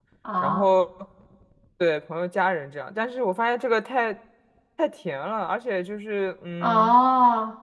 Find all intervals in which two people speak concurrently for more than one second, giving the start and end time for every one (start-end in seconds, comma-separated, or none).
none